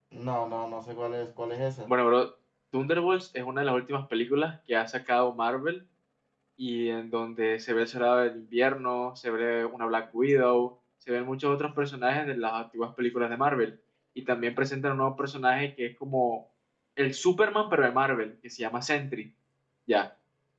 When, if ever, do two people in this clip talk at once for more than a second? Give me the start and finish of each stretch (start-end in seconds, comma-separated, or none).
none